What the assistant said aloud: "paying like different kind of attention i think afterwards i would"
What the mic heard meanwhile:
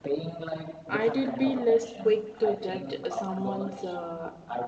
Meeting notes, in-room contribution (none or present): present